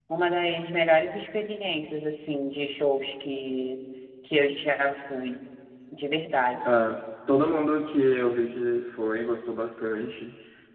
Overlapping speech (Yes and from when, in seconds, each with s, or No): No